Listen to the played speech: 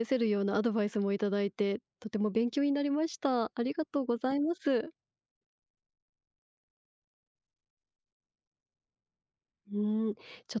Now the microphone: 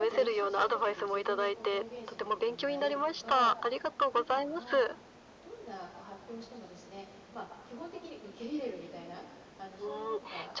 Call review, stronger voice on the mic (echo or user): echo